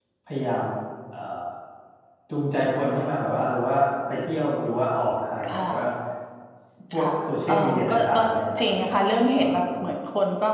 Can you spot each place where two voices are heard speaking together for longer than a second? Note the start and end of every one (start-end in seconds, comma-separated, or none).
7.0-8.2